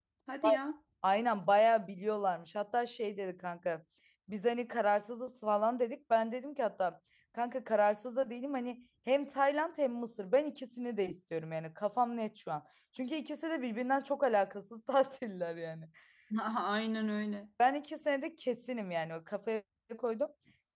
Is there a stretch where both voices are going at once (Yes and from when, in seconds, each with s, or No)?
No